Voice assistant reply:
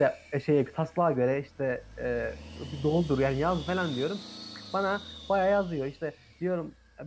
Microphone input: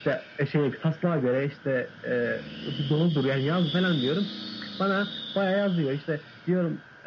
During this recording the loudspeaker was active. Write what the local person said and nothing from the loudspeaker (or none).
none